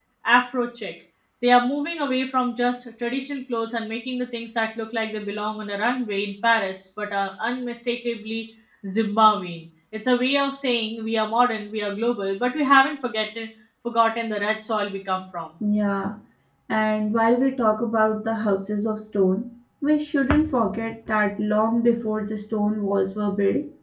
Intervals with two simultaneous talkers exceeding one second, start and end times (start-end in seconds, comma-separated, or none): none